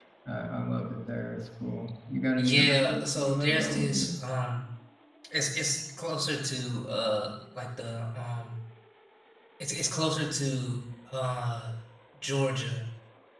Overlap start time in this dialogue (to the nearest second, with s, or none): 2 s